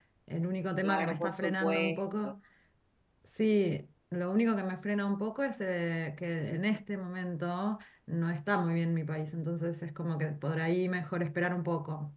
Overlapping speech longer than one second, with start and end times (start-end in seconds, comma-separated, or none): 0.8-2.3